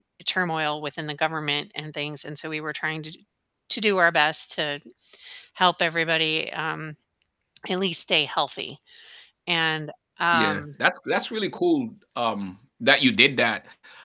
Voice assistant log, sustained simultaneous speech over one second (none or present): none